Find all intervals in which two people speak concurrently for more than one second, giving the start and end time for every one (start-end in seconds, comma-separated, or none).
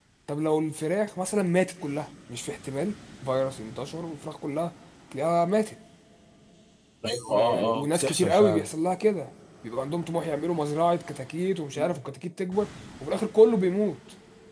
7.3-8.7